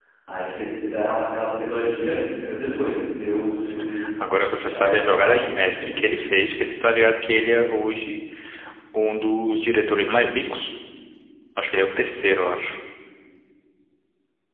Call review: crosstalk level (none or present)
present